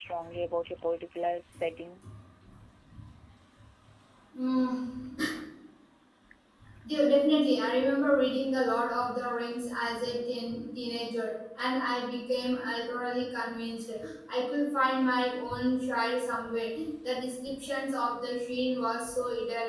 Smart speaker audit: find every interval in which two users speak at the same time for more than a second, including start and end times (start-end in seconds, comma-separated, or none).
none